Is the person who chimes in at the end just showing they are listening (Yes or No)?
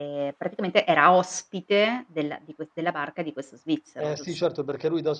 No